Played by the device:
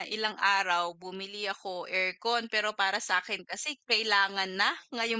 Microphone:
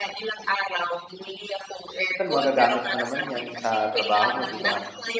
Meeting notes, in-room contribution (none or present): present